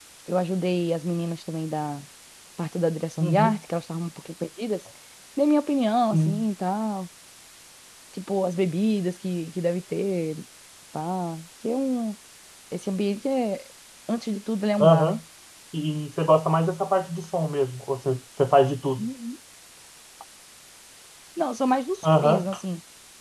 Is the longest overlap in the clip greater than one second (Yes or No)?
No